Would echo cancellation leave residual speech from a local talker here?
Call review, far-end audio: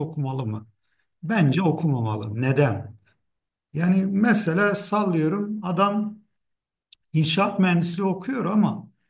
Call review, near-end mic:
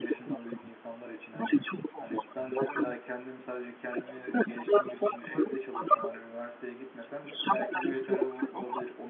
Yes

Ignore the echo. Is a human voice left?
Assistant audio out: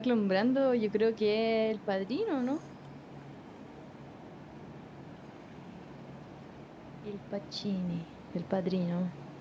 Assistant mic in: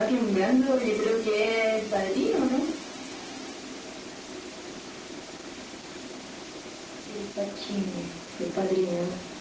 No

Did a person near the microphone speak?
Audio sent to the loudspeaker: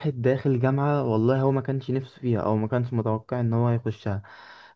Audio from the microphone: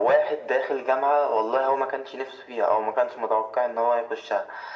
No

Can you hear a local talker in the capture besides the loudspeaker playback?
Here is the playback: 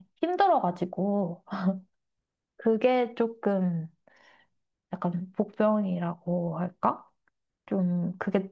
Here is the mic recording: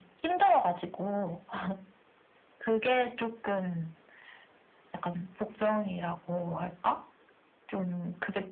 No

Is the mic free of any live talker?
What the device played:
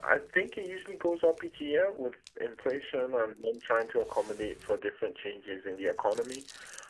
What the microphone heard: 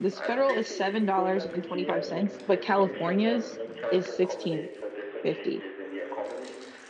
No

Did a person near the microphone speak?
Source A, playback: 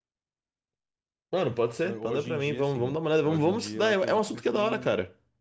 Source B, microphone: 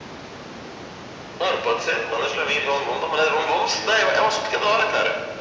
No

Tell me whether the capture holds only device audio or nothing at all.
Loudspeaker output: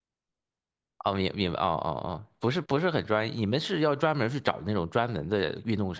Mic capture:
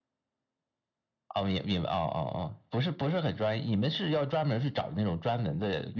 Yes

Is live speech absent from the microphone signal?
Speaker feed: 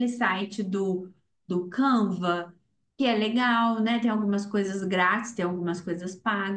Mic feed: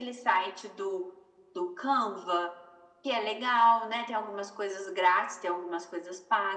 Yes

